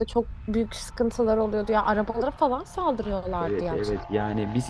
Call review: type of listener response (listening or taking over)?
taking over